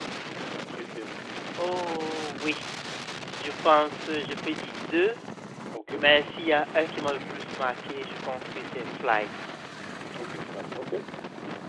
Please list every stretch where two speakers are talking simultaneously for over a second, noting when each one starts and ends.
none

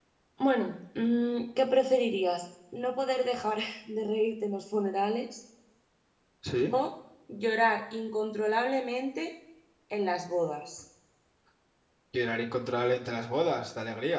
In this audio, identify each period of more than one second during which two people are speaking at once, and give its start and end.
none

